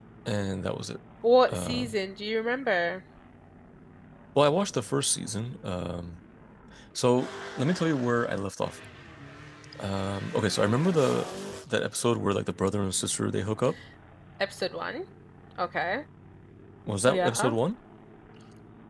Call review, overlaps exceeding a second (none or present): none